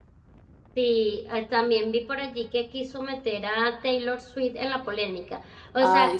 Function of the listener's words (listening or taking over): listening